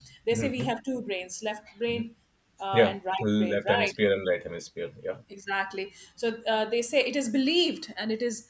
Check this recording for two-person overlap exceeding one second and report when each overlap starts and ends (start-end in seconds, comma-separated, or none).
2.7-3.9